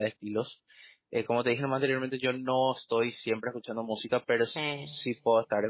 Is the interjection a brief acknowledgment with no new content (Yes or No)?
Yes